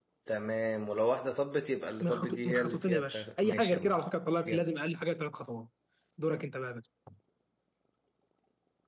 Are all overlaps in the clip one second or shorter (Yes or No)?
No